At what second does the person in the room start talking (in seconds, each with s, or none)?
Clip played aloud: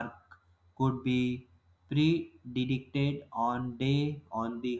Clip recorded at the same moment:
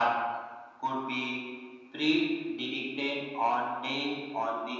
none